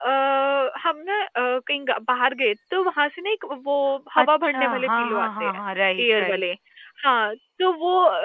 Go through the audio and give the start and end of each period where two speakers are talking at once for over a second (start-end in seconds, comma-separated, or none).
4.2-5.6